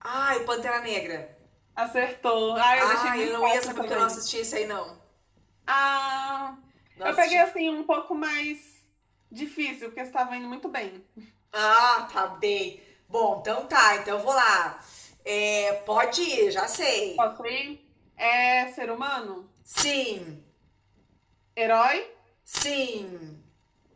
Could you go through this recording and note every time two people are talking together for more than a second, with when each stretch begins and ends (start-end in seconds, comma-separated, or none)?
2.8-4.2